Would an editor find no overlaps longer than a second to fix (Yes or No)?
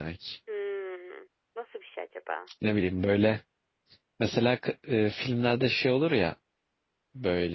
Yes